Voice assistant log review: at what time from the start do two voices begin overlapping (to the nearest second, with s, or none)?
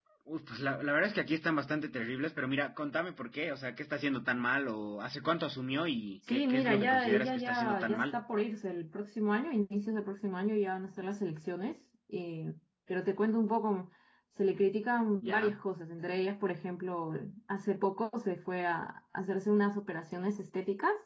6 s